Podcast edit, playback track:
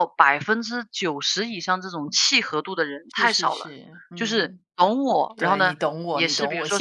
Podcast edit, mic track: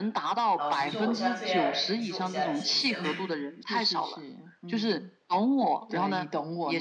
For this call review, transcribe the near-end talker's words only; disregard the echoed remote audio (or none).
老实说，我现在最爱的人也不是我现在的先生，